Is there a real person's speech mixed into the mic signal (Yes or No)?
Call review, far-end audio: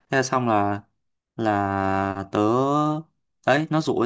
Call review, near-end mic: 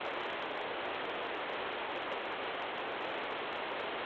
No